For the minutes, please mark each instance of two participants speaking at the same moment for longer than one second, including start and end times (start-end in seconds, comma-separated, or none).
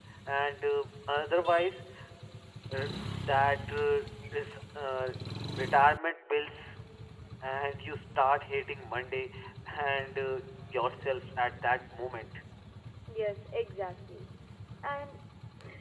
none